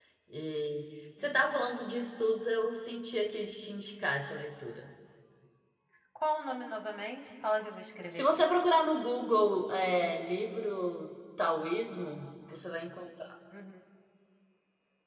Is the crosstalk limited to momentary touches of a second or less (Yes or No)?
Yes